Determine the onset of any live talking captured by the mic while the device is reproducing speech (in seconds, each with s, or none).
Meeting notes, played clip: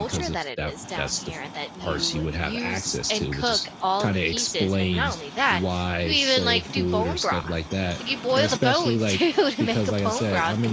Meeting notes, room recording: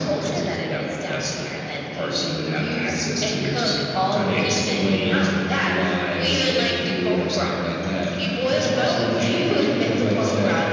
none